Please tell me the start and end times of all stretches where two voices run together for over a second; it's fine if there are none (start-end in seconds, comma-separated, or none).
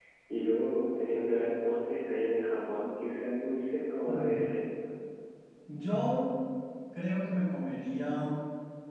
none